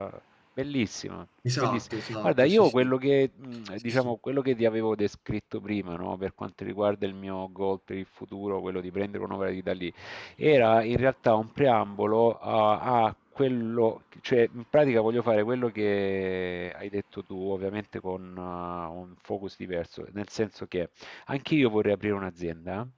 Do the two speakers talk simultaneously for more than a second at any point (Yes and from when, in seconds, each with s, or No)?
Yes, from 1.6 s